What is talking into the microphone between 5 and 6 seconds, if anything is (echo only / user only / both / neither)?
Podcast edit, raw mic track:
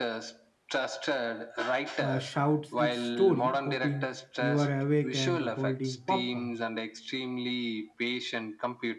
both